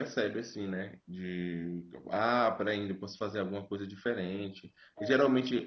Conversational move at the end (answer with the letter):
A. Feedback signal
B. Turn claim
A